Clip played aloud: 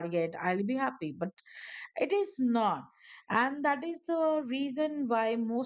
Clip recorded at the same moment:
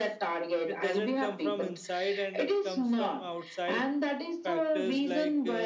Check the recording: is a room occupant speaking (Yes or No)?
Yes